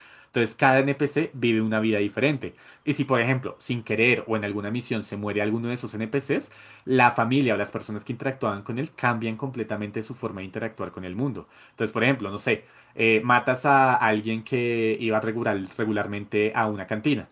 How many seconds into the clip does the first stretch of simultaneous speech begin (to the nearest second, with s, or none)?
none